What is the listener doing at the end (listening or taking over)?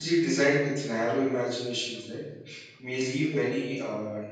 listening